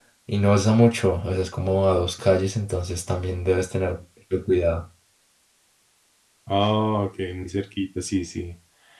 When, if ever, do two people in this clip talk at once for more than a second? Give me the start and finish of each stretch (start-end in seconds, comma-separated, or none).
none